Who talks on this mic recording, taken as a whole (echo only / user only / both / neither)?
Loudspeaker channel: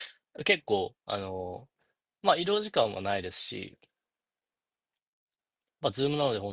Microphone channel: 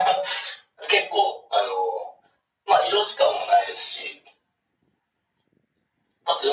echo only